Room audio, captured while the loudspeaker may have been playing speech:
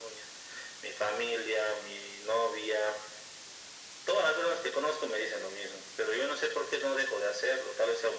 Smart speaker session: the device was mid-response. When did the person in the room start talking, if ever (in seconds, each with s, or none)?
none